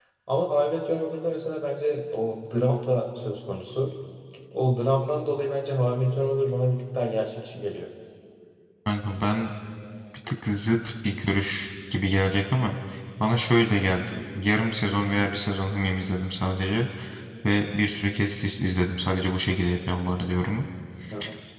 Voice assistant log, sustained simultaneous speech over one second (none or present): none